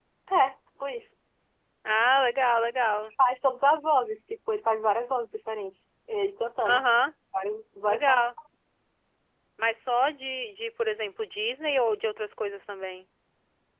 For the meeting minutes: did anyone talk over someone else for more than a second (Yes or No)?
No